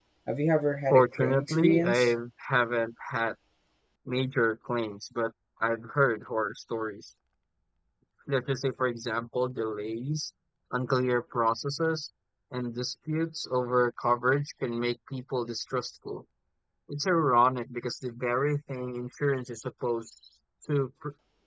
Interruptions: present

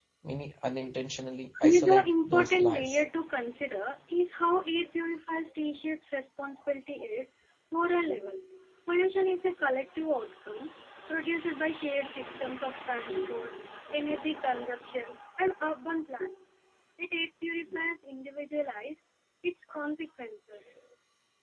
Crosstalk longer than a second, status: present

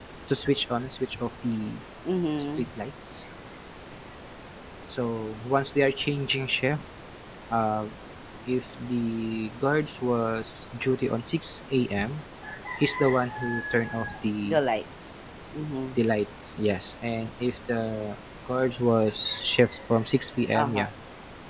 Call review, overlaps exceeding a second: none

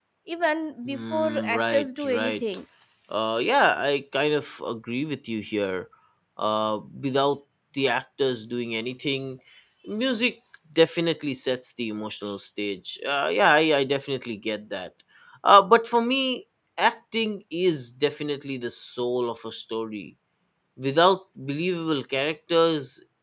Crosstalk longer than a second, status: present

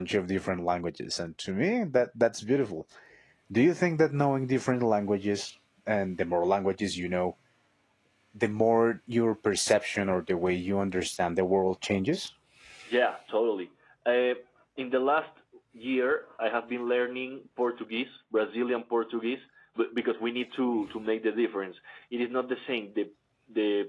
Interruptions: none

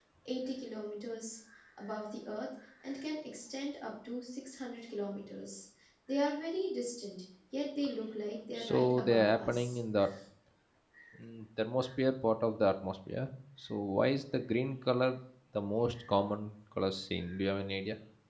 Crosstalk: present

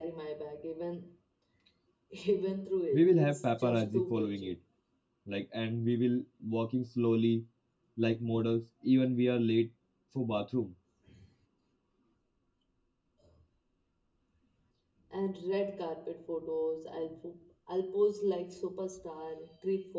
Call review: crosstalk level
present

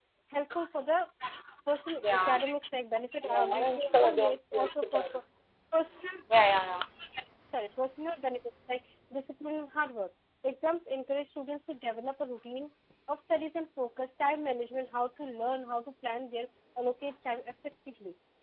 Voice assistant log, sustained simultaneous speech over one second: present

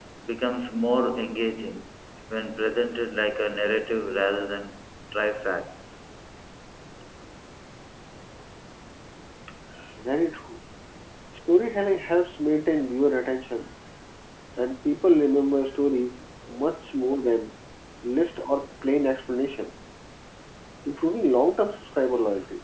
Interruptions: none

